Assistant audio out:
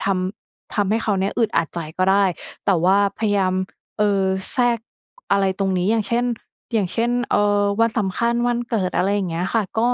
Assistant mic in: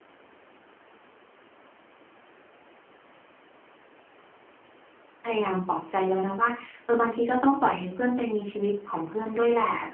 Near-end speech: present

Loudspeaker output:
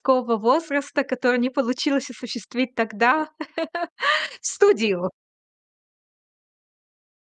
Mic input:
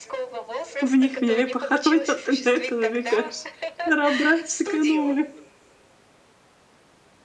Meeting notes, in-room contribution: present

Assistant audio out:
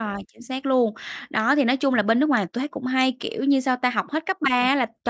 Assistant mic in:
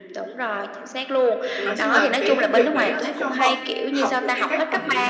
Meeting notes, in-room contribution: present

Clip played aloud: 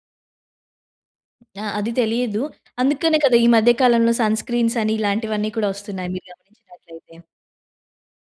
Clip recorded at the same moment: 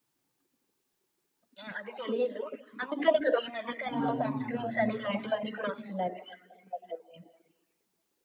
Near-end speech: present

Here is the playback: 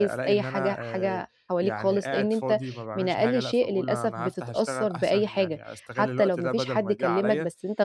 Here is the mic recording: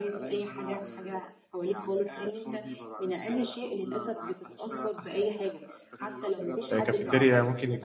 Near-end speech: present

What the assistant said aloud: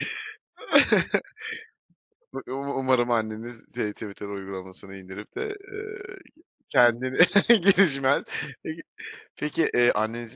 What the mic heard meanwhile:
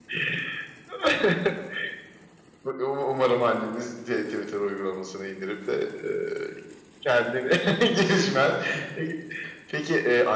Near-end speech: none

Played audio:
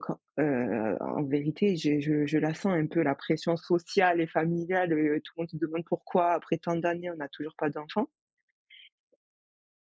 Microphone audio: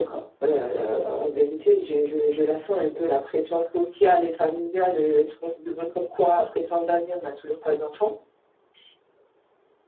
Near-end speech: none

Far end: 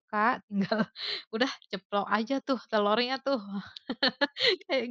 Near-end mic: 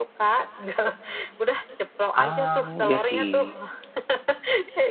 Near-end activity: present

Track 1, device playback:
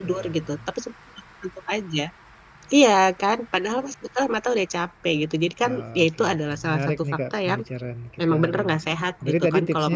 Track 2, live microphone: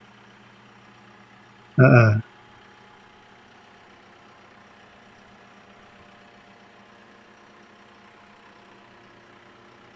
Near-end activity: present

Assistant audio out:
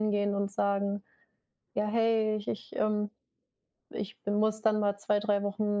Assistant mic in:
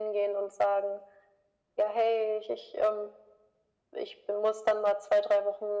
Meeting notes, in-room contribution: none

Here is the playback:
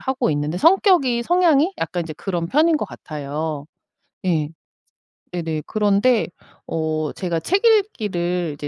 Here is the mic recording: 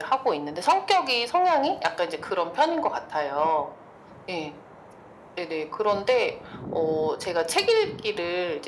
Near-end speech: none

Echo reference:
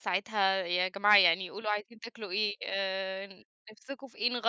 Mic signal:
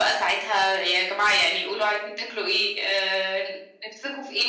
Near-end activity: none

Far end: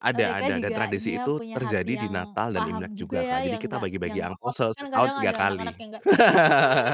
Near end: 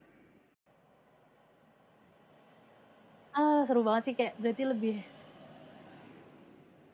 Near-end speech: present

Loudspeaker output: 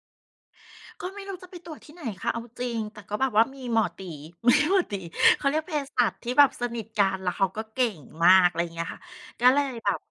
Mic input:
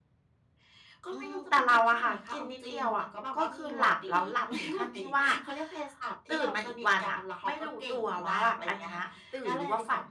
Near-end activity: present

